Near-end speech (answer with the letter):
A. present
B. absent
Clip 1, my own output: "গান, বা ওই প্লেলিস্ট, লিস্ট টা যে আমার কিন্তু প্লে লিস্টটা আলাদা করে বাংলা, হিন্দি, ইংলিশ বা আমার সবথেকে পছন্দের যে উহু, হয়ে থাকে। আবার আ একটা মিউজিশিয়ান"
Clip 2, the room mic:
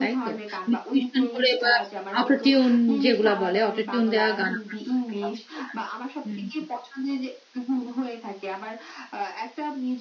A